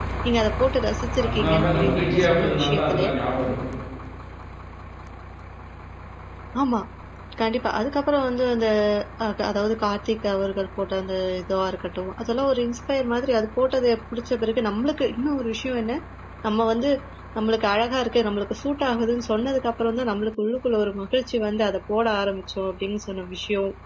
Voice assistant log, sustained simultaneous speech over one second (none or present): present